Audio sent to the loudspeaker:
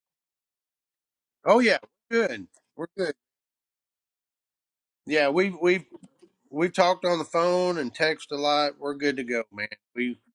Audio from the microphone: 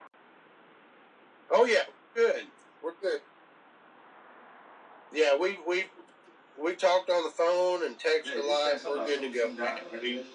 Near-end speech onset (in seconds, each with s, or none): 8.2 s